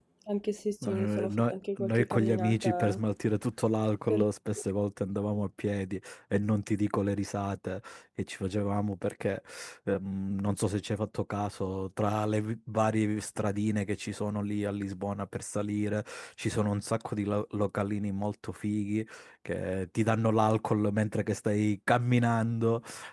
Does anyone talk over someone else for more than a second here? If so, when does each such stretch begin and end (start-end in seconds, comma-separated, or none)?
0.8-3.0